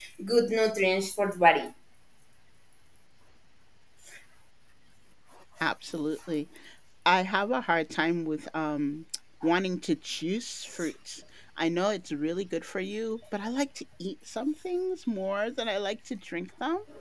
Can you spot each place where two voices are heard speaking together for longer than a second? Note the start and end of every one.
none

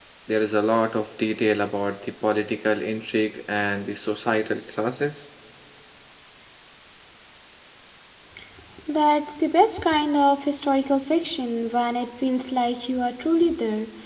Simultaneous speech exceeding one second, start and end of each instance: none

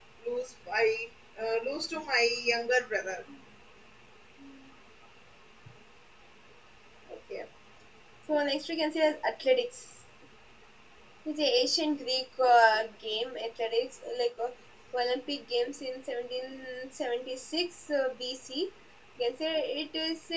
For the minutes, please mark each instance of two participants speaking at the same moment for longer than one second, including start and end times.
none

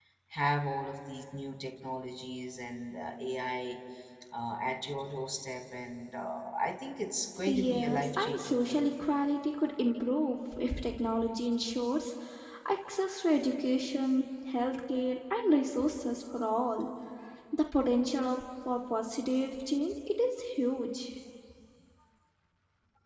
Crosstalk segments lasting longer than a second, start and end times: 7.5-8.9

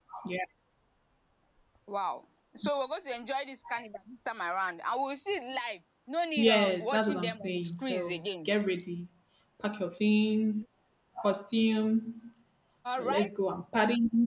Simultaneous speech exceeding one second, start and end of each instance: 6.4-8.5

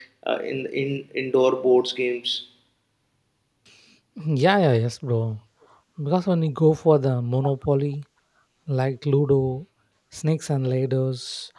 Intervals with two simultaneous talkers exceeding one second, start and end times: none

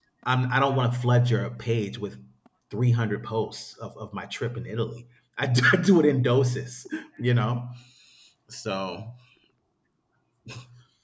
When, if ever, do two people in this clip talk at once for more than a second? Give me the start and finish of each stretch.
none

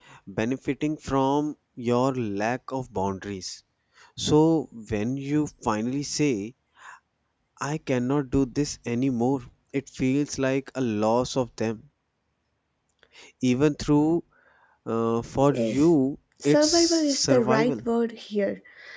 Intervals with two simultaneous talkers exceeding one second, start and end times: 16.4-17.7

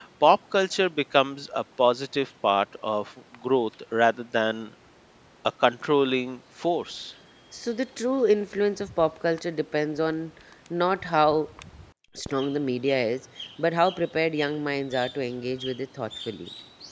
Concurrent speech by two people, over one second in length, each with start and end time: none

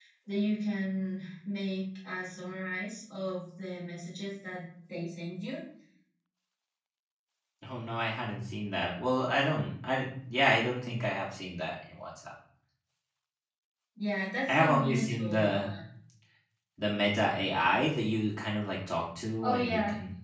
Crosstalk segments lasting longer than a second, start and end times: 14.5-15.7

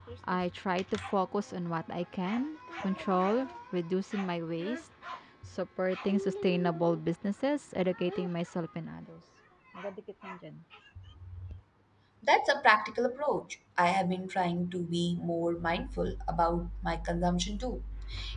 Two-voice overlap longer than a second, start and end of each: none

